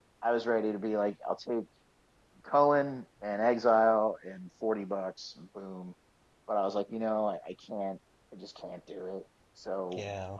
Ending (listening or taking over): taking over